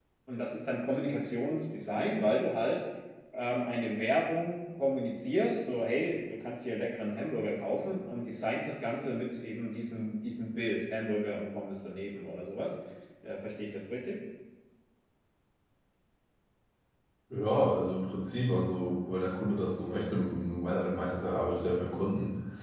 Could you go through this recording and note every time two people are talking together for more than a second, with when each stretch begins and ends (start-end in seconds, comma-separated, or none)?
none